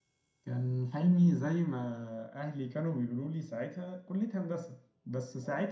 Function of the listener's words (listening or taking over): listening